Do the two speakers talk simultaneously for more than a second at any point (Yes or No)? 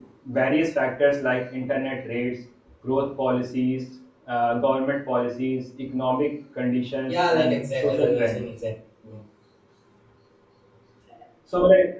Yes